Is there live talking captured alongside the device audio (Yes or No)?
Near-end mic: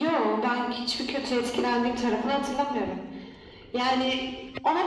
No